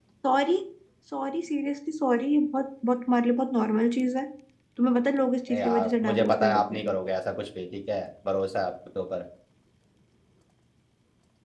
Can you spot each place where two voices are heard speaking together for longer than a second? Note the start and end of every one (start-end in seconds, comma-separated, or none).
5.5-6.9